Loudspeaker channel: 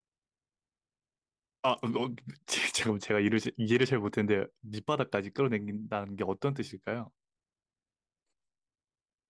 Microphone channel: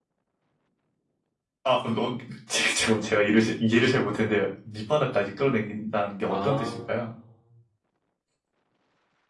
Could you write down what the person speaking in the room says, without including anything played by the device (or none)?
아,